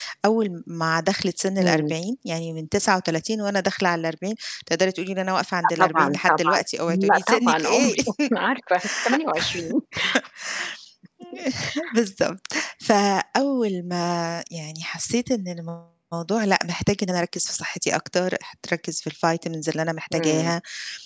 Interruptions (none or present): present